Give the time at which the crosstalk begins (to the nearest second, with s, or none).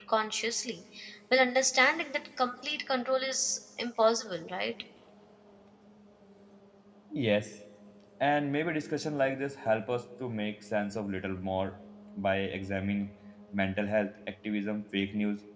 none